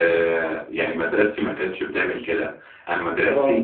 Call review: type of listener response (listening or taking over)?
listening